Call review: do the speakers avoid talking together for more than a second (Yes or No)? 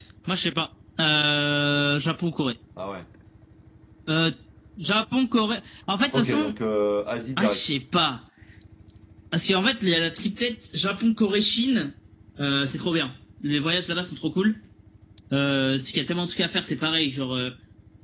Yes